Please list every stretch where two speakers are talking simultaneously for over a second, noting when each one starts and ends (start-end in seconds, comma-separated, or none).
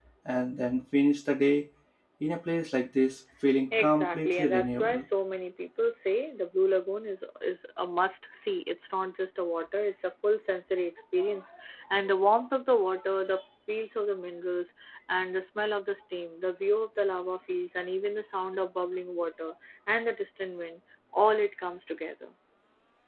3.8-5.0